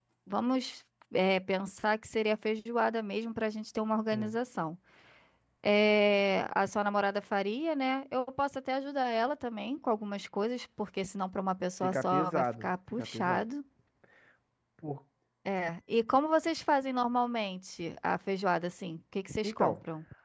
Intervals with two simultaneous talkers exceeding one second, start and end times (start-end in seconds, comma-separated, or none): 11.8-13.4